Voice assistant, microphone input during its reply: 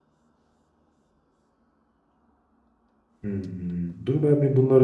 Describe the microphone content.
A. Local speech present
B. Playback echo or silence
A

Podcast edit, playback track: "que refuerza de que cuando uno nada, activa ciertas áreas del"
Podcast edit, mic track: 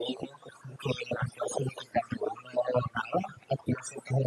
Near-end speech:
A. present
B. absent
B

